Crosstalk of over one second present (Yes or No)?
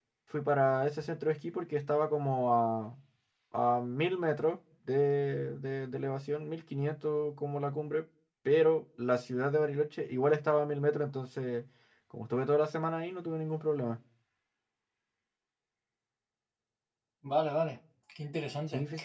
No